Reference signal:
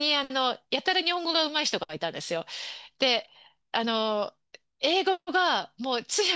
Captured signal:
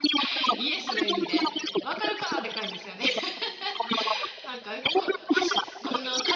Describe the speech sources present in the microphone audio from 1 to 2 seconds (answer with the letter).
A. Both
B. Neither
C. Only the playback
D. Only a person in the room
A